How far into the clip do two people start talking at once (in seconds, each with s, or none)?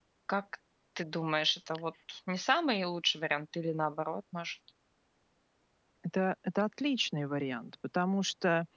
none